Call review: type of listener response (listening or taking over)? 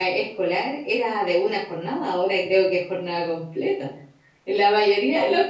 listening